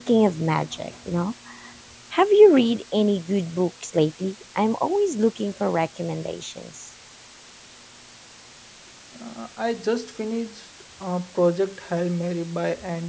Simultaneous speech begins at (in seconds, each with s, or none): none